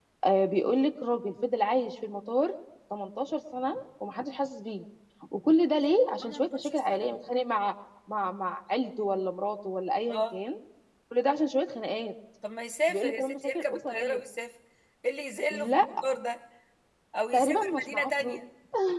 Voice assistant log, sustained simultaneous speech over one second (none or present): present